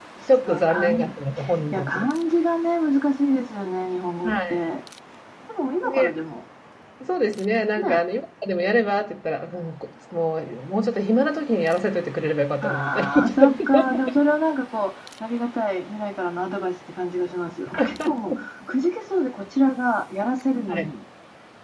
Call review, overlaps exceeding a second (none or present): present